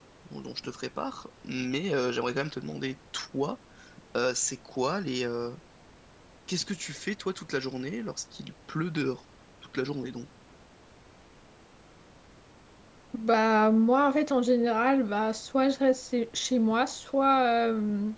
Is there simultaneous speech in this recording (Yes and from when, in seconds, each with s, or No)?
No